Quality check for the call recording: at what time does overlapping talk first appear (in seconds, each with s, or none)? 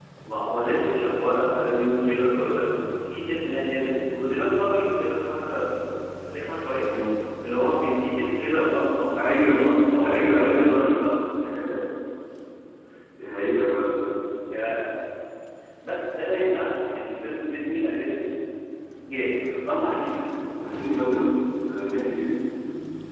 9.2 s